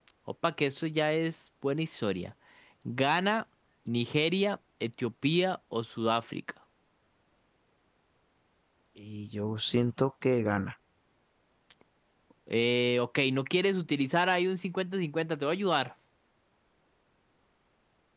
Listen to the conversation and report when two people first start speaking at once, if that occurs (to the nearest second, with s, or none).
none